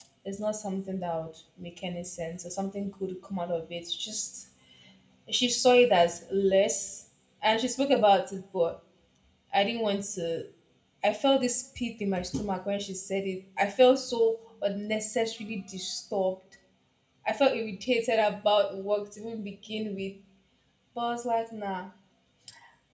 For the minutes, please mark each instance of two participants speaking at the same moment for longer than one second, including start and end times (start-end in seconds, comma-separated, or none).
none